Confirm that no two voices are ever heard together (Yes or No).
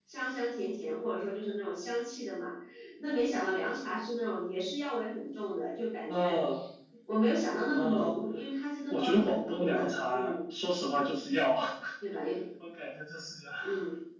No